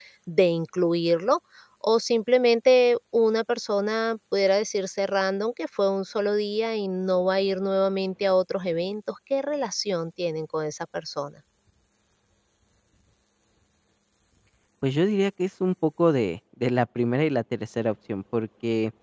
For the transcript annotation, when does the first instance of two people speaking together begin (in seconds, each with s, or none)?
none